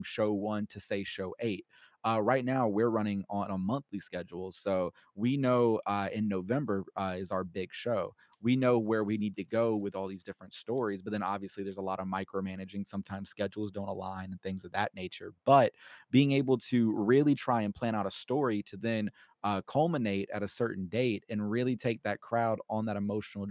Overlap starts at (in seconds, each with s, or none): none